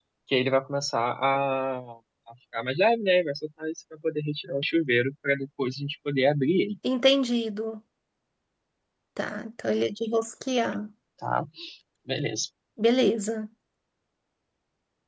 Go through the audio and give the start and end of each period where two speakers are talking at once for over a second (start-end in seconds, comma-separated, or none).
none